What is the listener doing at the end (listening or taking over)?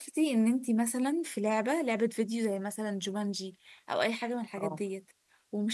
listening